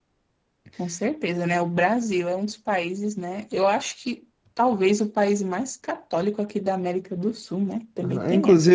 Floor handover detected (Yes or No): Yes